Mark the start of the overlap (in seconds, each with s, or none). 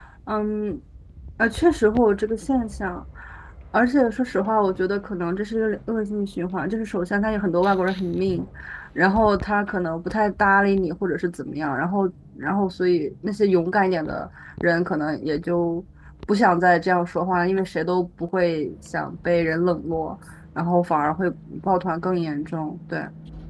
none